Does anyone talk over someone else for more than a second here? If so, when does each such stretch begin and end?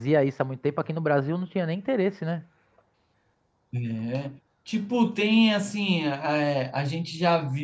none

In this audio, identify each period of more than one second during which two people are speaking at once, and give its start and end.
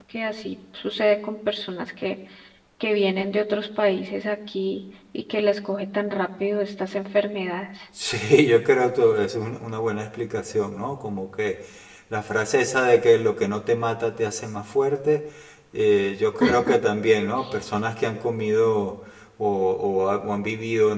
none

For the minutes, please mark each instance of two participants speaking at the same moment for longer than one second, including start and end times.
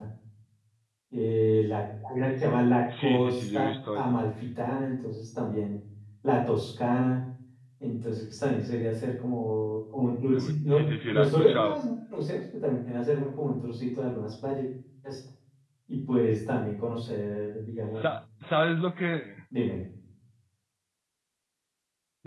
3.0-4.2, 10.3-11.8

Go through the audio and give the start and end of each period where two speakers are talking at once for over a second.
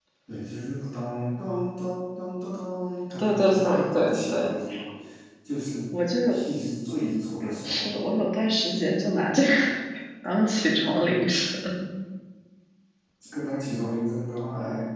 3.2-4.5

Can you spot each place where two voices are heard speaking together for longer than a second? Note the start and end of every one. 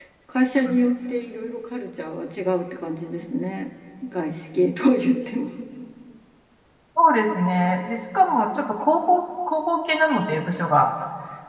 none

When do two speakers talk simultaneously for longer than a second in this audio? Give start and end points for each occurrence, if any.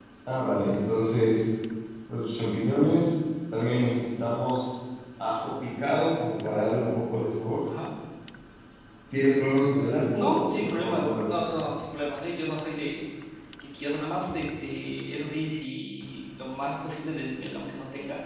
10.1-11.5

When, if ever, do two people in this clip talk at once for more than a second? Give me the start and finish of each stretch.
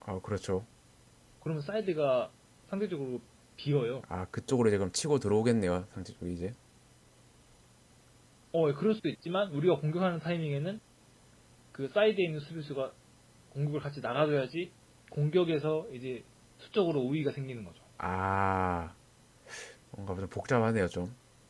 none

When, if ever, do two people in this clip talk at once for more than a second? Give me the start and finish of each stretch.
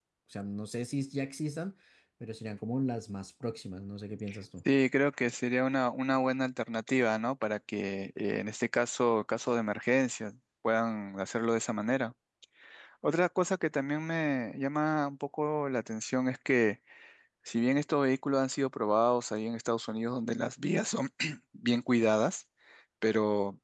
none

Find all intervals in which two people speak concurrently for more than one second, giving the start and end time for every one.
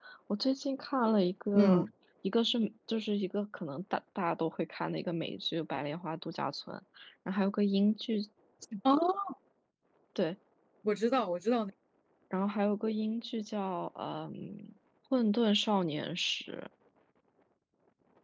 none

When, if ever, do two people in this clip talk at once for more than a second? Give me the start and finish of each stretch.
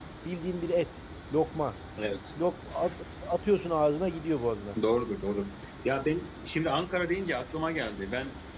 none

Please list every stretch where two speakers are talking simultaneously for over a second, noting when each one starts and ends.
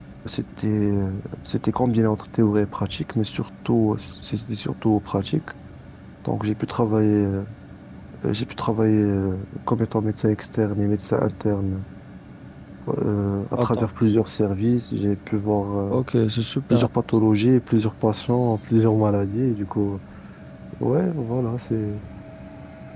none

